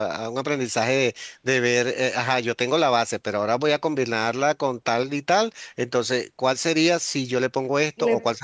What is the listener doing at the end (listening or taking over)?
listening